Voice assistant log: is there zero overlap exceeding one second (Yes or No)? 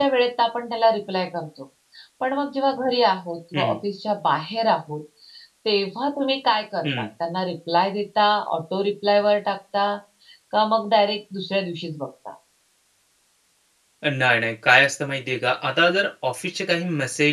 Yes